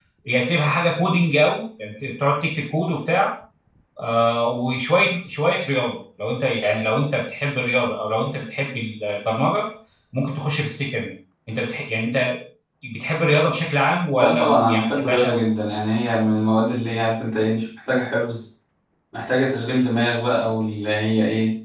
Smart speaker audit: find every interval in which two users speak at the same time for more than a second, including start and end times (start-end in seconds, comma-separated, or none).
14.2-15.4